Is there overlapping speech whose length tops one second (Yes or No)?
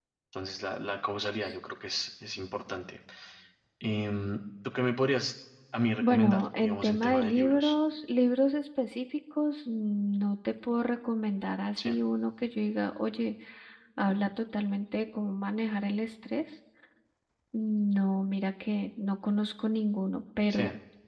Yes